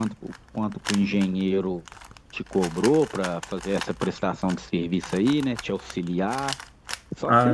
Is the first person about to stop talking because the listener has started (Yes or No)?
Yes